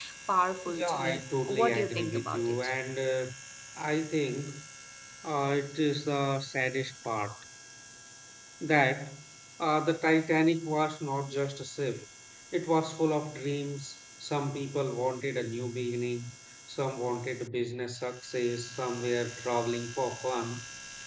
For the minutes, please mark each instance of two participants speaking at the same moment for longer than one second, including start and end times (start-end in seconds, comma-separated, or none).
0.7-2.7